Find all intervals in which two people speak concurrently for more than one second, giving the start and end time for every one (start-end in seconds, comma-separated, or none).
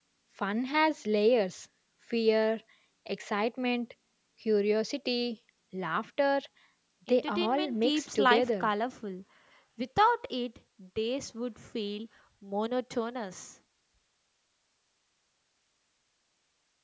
7.1-8.7